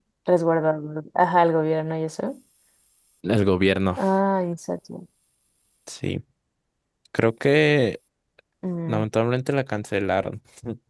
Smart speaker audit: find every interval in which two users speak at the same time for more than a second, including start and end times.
none

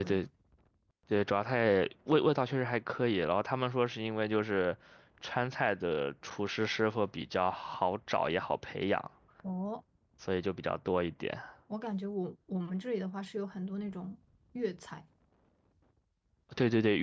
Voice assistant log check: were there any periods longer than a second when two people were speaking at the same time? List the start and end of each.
none

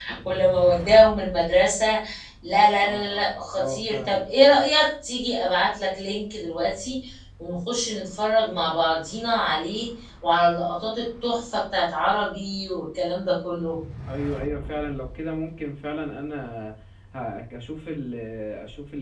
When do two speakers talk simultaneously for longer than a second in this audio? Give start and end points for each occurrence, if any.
2.8-4.2

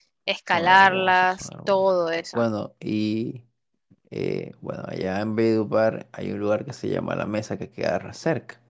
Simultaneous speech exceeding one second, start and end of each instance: 0.5-1.8

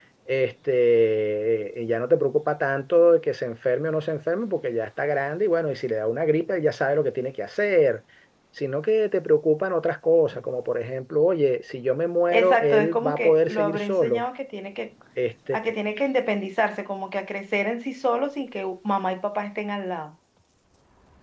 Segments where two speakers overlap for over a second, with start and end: 12.3-14.2

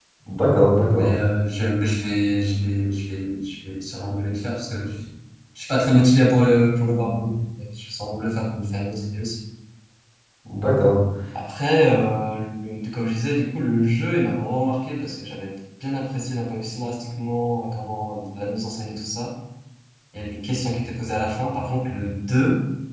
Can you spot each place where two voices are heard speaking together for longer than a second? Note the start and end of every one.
none

